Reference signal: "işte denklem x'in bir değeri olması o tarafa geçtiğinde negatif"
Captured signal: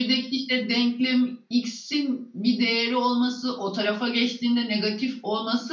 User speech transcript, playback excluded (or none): none